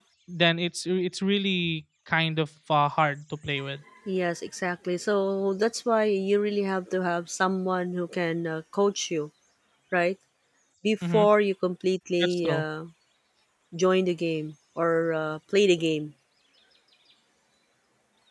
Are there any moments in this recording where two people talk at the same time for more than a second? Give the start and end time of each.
none

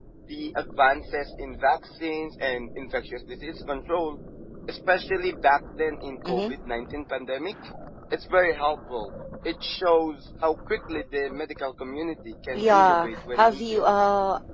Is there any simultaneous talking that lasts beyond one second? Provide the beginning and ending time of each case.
12.5-13.8

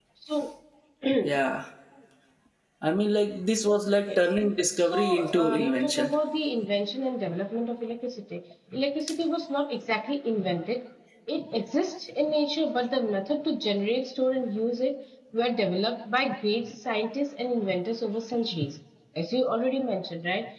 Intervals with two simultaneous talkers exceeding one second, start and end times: 4.9-6.1

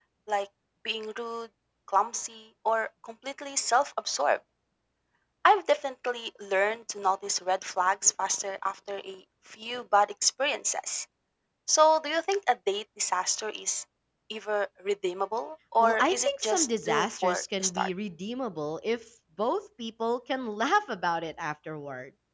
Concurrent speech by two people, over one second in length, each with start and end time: 15.8-17.9

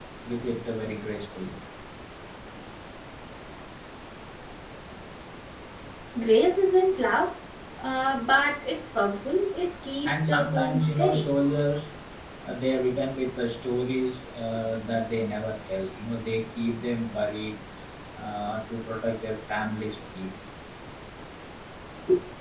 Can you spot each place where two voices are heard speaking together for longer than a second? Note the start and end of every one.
10.1-11.3

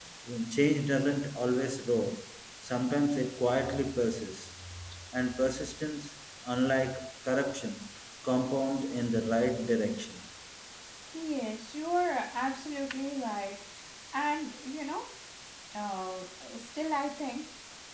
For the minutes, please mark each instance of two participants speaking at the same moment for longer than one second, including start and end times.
none

